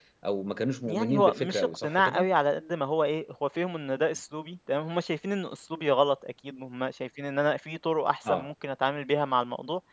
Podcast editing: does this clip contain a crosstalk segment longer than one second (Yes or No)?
Yes